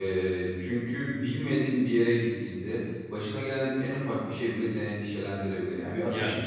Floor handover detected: No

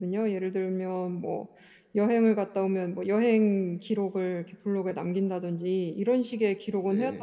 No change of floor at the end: Yes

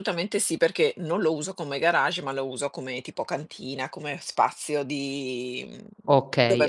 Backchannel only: No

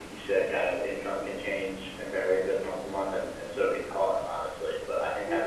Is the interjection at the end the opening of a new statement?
No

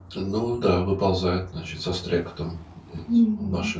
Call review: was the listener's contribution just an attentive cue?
No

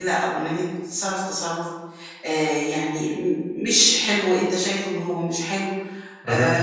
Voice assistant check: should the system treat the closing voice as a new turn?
No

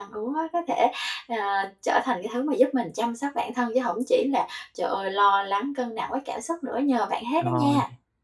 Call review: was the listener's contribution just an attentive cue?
No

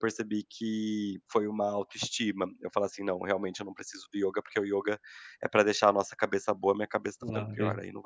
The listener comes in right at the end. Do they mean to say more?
Yes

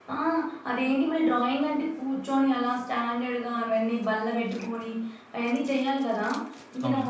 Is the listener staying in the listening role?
Yes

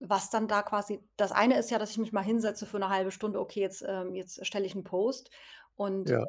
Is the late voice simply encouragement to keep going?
Yes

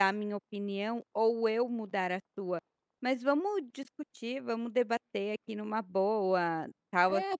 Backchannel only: No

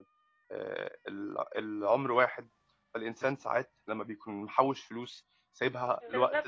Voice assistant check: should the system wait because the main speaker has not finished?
No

